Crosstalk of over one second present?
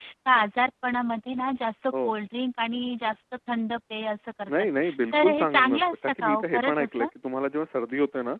Yes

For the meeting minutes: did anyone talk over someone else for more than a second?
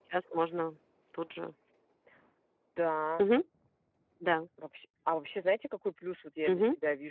No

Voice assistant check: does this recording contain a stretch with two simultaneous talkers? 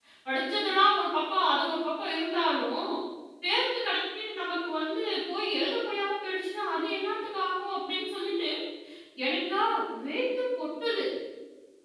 No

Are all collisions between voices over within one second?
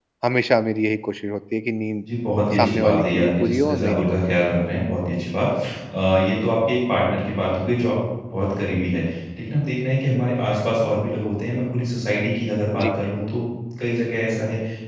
No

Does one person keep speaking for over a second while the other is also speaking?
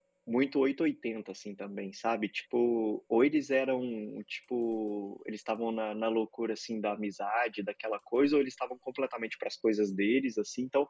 No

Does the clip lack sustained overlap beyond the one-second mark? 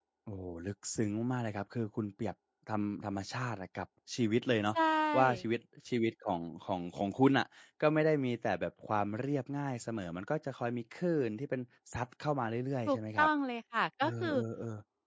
Yes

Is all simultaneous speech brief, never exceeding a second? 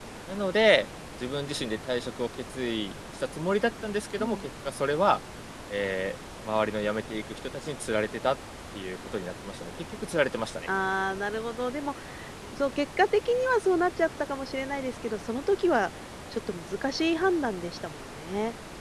Yes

